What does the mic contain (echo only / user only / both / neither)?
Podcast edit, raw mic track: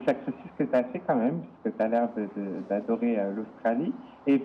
echo only